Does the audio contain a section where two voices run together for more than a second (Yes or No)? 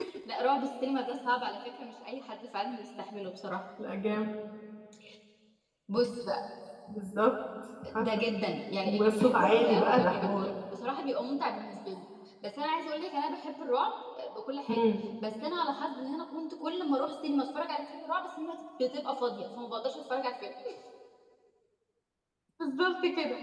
Yes